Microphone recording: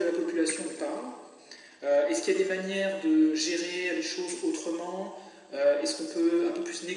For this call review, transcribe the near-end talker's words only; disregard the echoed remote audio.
none

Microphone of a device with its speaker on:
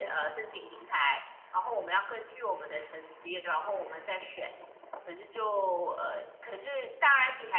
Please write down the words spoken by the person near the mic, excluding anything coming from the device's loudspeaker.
none

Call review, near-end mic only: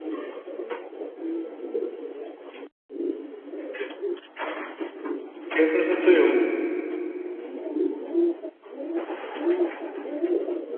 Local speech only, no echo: Okay, ist ein bisschen zu jung.

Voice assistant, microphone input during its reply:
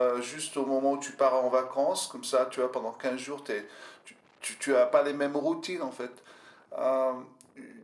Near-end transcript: none

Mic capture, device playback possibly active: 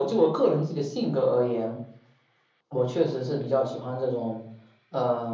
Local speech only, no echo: none

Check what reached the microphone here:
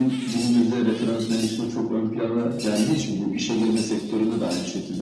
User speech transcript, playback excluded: none

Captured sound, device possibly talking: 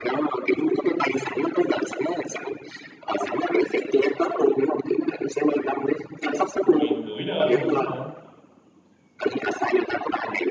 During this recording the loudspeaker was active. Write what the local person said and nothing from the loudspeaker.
Một ngàn rưỡi đơn lận hả?

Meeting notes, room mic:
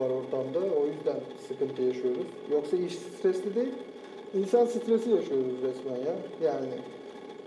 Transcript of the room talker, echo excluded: none

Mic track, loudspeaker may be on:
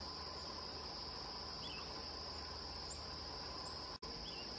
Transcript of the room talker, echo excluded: none

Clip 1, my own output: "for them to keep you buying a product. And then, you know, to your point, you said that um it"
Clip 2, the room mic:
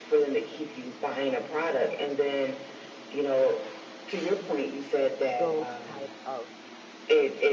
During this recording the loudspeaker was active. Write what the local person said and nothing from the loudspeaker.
those type of

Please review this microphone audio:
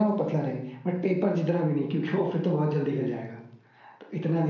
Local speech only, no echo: none

